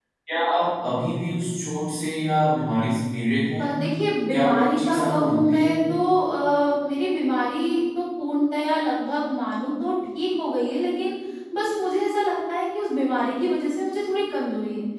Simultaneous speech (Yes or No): Yes